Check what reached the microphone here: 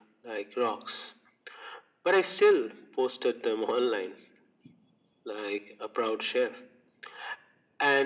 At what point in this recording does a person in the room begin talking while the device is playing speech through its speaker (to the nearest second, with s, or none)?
none